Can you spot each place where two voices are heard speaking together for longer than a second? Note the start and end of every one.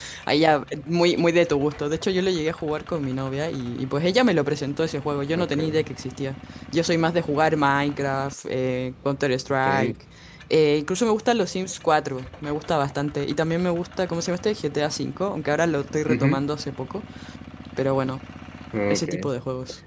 none

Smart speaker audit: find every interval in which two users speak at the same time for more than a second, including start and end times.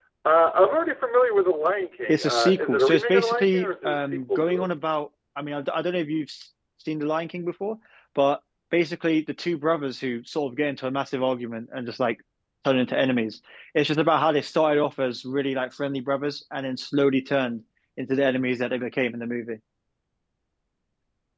2.1-4.6

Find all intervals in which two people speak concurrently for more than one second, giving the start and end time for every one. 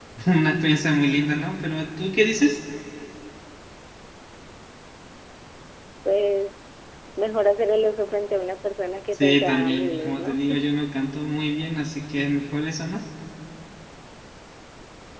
9.1-10.4

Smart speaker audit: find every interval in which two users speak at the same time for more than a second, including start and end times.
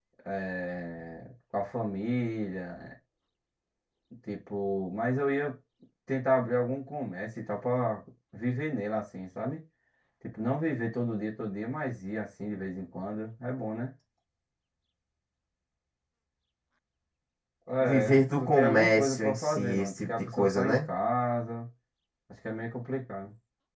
17.8-20.8

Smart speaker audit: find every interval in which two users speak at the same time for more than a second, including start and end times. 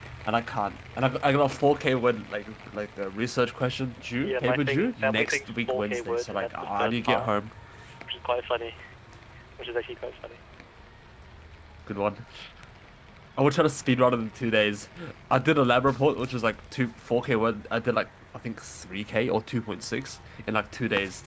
4.2-7.3

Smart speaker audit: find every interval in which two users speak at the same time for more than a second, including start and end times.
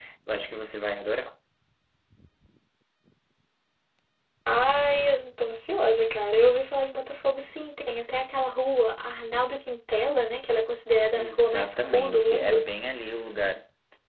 11.2-12.6

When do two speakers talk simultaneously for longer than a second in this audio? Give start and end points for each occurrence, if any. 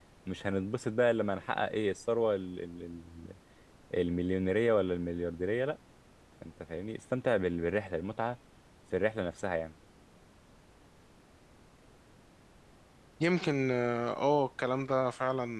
none

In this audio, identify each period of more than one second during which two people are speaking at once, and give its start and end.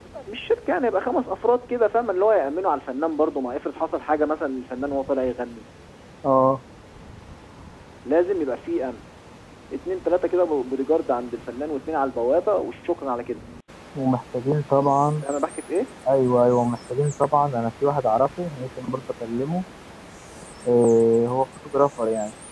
none

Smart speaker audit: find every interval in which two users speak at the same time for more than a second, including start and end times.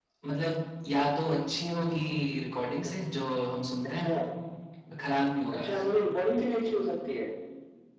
none

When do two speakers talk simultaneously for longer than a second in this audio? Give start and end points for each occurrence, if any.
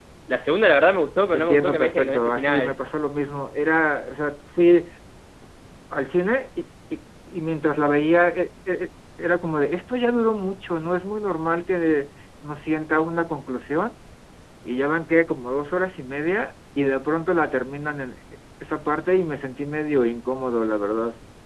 1.3-2.7

